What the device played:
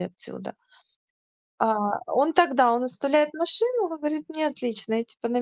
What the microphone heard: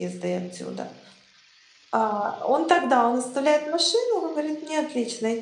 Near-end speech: none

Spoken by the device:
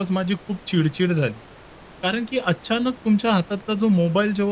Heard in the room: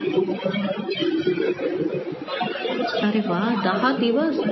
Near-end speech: present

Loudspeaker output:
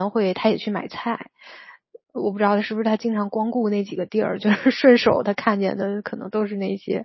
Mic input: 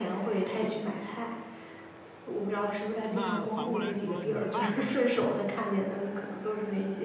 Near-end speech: present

